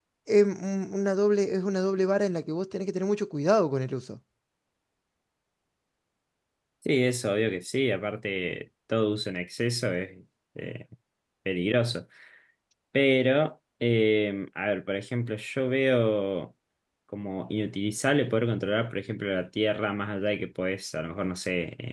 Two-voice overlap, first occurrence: none

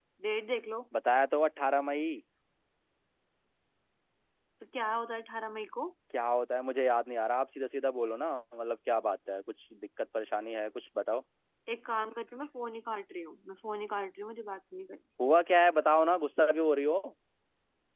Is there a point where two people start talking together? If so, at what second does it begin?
none

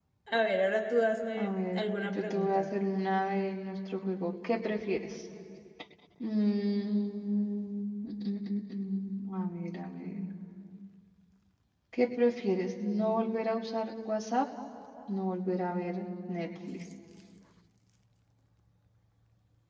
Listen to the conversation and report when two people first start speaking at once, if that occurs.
1 s

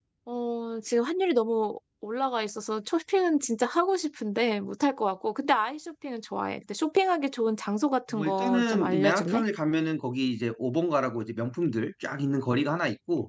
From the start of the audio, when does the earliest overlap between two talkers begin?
8 s

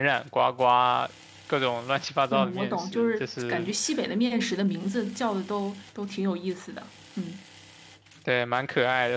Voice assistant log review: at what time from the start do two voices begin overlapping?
2 s

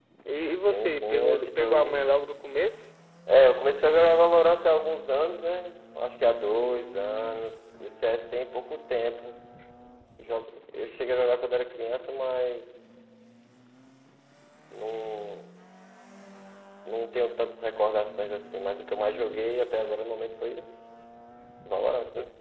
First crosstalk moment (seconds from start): 1 s

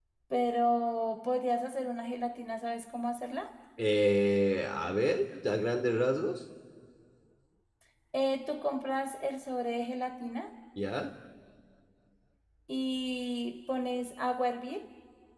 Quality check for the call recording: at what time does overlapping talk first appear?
none

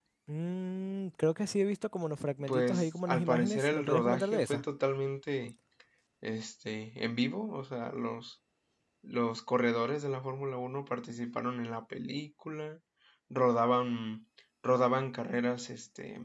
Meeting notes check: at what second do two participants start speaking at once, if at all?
2 s

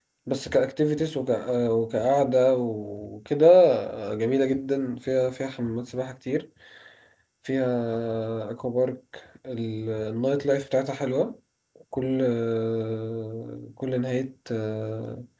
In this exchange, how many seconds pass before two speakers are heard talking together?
none

